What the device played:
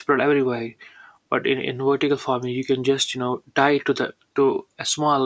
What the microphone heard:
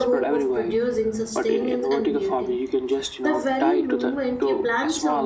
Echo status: present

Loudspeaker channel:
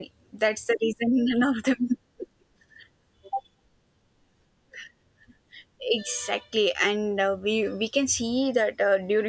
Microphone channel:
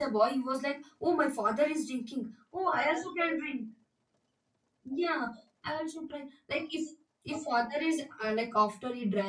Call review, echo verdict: none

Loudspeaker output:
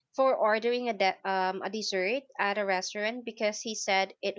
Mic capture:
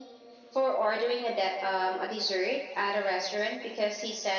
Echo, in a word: present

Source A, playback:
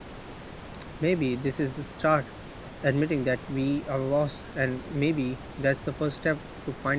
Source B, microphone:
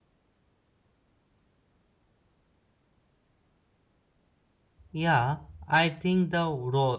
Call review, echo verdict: none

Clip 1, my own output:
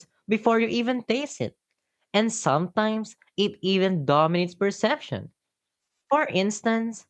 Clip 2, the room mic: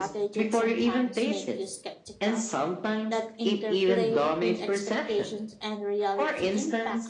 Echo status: present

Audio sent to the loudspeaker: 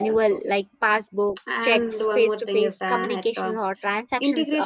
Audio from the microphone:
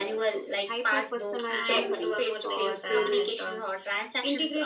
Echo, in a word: present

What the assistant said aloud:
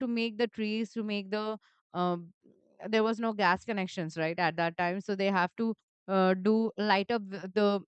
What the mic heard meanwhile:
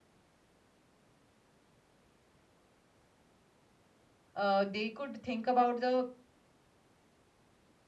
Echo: none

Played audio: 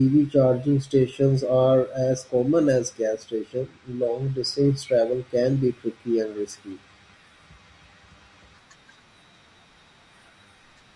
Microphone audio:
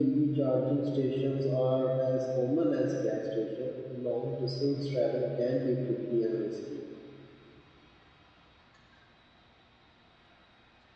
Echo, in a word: present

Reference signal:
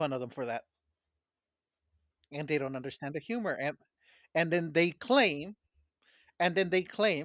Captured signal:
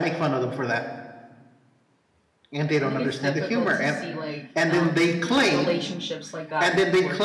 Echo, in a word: present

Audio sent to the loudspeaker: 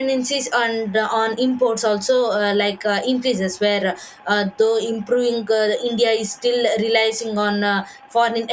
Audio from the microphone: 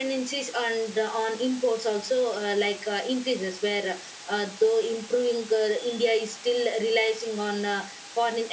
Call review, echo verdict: present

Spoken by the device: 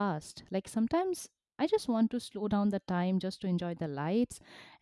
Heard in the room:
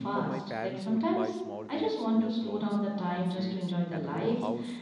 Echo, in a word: present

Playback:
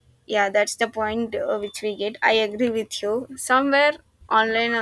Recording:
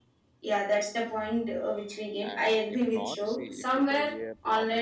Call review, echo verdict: present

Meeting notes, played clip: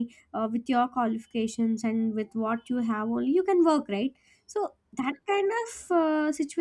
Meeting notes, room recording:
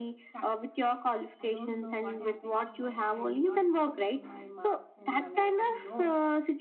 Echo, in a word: present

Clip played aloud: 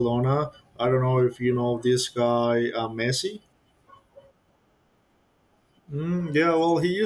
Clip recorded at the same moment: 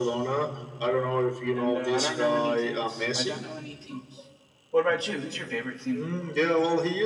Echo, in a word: present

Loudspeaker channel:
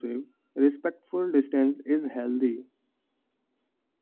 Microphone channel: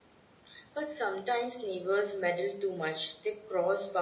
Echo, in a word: none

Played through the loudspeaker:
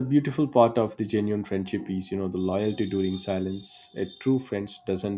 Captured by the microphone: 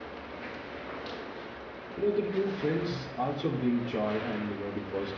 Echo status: none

